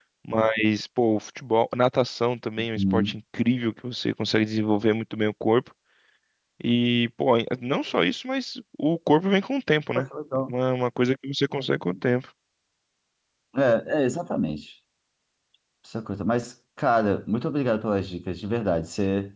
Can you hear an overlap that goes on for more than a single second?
No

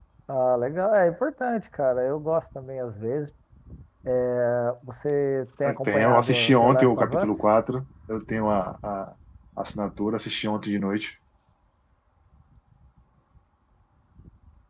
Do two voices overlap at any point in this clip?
Yes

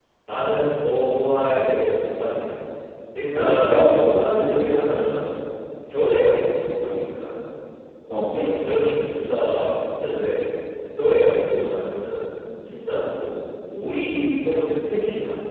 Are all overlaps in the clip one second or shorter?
No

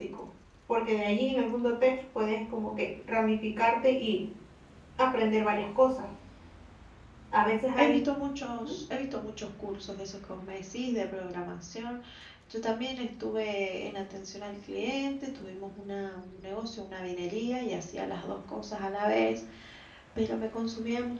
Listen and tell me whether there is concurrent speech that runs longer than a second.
No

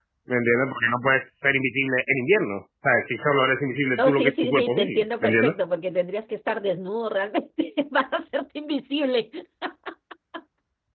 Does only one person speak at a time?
No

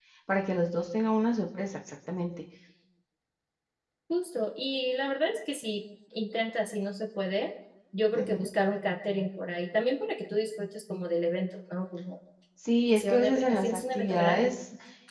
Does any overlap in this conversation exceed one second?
Yes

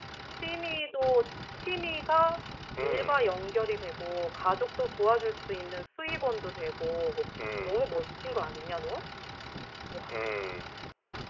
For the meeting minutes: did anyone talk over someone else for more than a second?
No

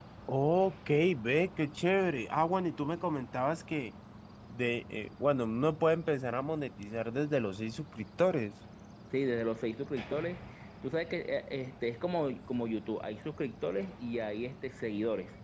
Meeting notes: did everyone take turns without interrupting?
Yes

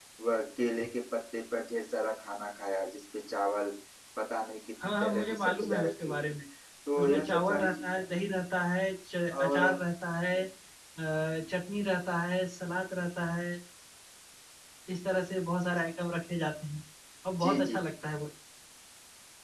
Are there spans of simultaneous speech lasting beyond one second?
Yes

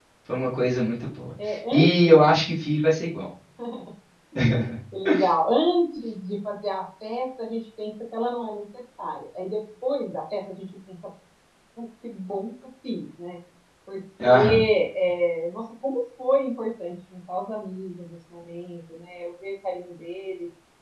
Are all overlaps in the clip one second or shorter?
Yes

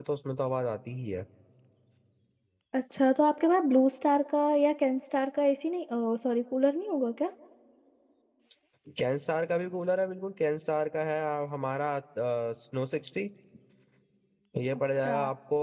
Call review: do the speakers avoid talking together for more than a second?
Yes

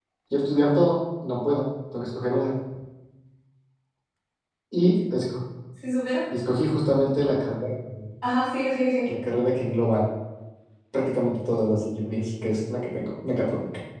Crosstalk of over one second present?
No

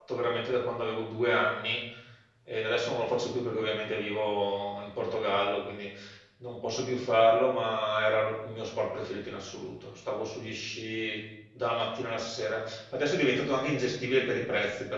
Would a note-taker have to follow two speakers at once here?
No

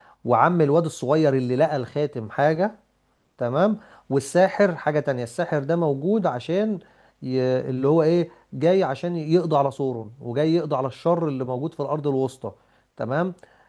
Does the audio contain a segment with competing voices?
No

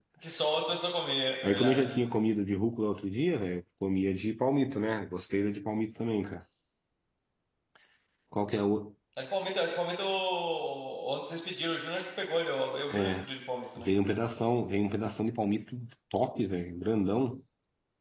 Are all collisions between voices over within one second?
Yes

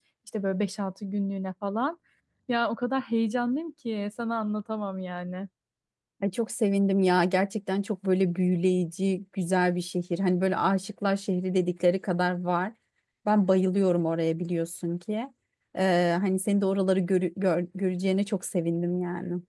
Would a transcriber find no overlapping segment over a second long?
Yes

